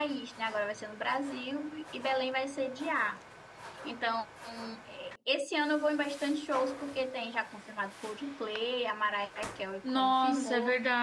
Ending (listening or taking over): taking over